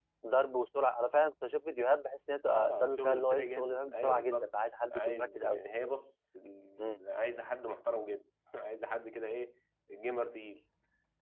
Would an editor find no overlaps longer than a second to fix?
No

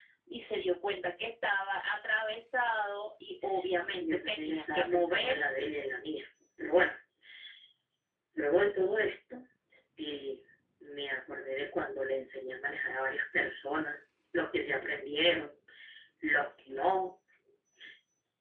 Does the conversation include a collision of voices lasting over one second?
Yes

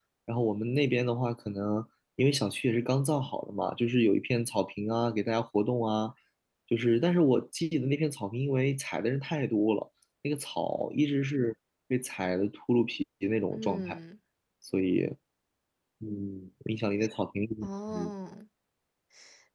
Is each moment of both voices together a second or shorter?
Yes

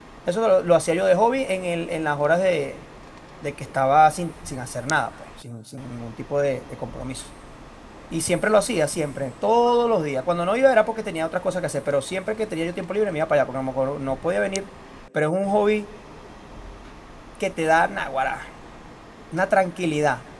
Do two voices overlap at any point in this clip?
No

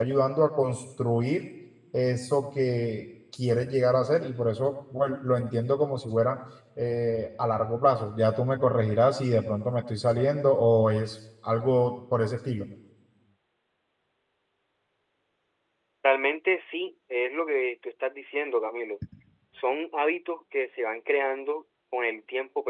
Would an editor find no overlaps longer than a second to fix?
Yes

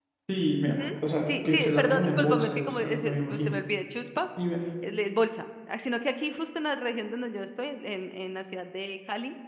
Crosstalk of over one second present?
Yes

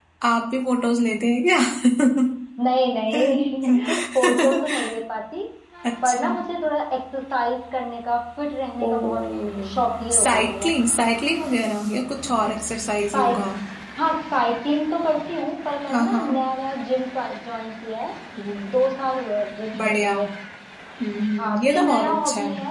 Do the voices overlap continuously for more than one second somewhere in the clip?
Yes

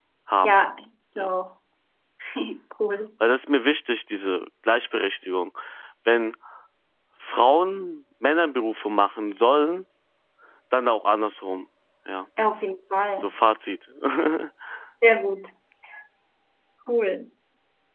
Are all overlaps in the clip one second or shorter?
Yes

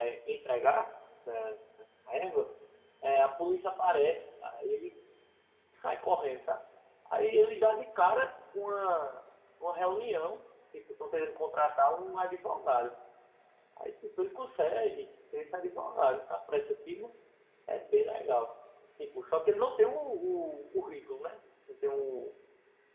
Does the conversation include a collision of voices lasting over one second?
No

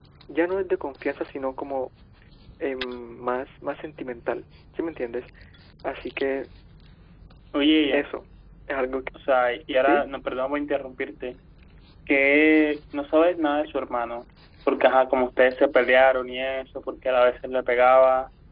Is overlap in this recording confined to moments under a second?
Yes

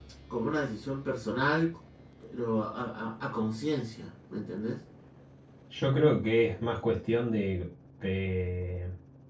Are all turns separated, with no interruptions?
Yes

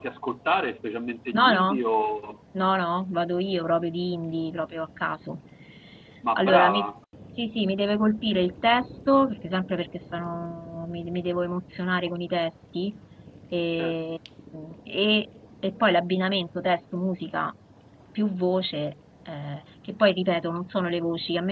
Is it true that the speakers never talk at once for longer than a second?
Yes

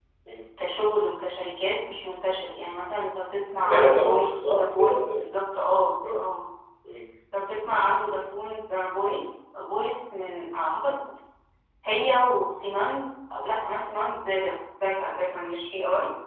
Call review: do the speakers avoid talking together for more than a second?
No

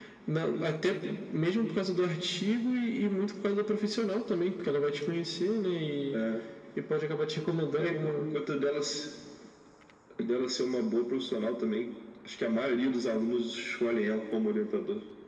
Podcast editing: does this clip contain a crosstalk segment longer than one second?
No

